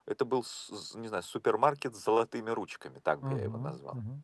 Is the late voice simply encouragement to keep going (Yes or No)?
No